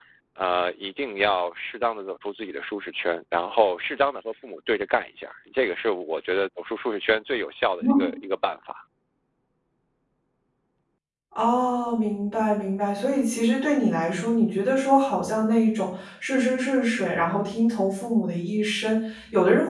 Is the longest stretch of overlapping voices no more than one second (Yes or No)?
Yes